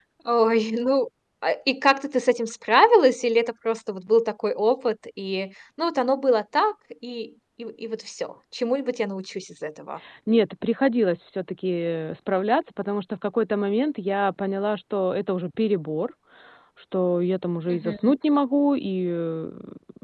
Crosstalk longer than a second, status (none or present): none